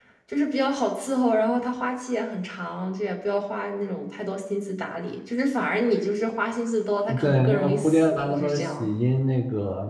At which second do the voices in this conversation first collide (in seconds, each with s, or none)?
7.0 s